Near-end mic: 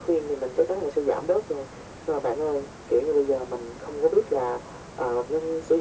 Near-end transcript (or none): none